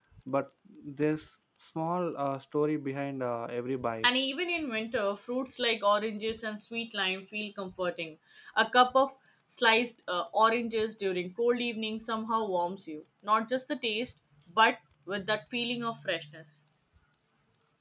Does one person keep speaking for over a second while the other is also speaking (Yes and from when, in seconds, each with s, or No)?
No